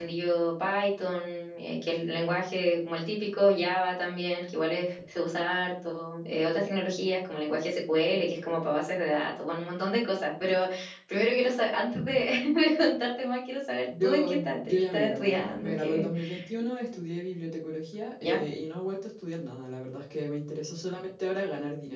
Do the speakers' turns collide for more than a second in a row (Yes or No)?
Yes